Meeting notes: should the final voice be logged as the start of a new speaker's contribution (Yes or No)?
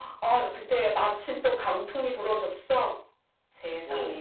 Yes